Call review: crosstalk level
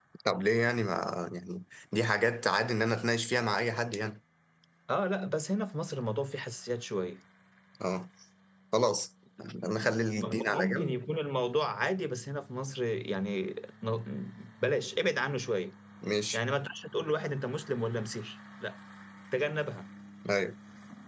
present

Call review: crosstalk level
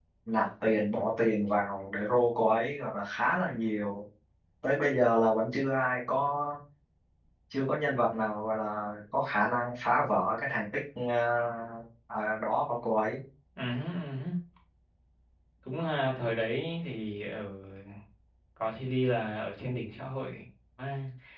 none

